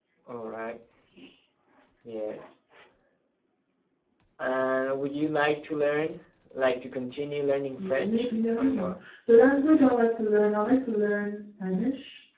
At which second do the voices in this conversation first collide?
7.8 s

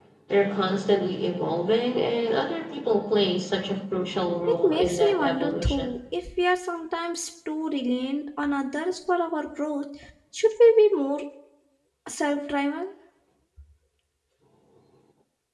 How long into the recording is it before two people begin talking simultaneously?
4.5 s

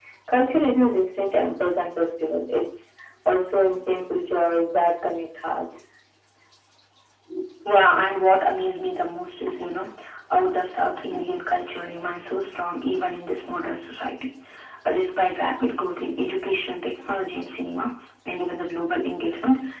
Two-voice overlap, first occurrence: none

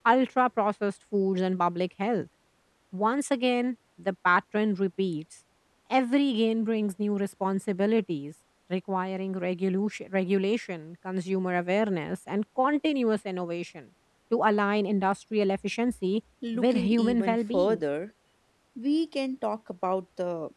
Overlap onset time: 16.4 s

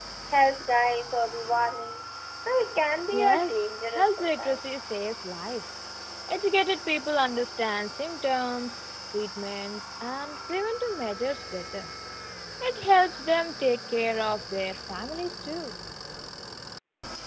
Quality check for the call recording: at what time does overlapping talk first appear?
3.1 s

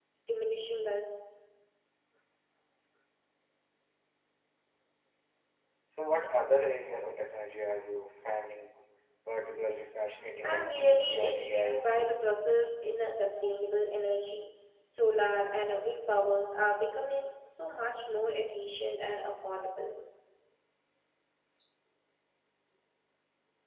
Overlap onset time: 10.4 s

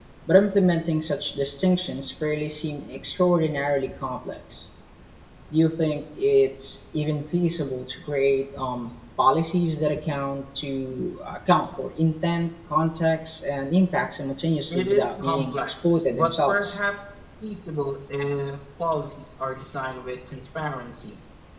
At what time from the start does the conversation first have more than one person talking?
14.7 s

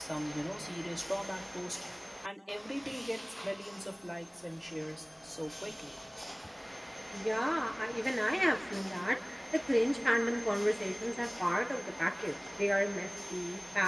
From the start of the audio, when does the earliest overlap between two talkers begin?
none

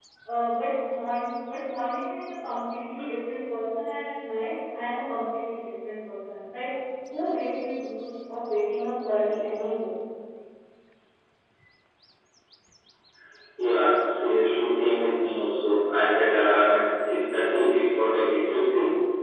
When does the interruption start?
none

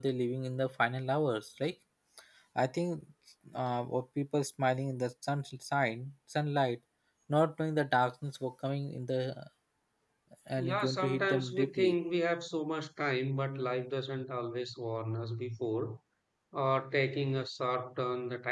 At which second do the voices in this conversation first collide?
10.6 s

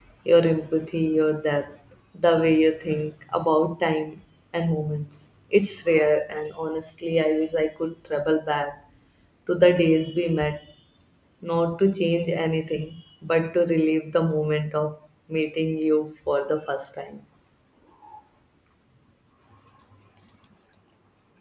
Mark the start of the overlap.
none

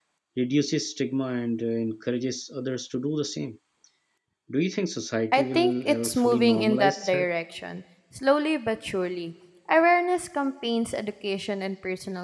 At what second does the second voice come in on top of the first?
5.3 s

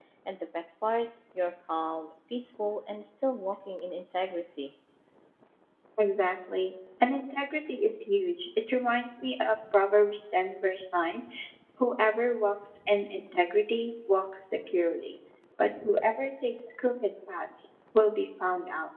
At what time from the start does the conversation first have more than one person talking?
none

